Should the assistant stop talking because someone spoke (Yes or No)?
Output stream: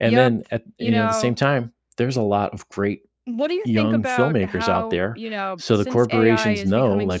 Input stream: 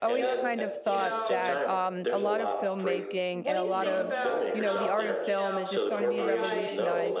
Yes